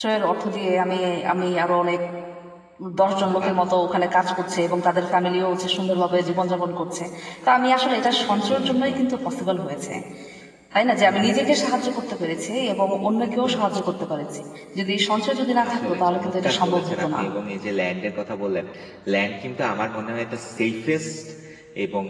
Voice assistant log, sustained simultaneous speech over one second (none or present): present